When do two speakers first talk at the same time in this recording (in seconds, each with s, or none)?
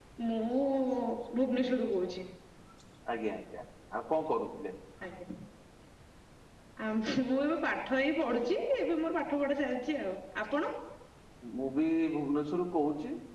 none